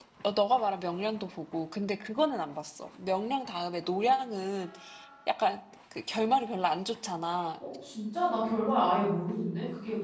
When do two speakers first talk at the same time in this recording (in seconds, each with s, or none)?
none